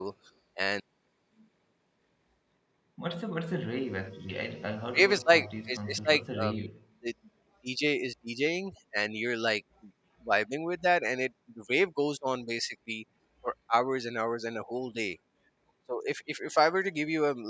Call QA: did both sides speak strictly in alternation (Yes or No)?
No